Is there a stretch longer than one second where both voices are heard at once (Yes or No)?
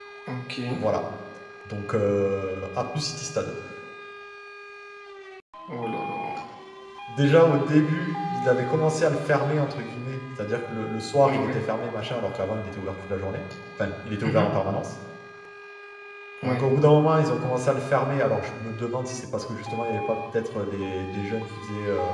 No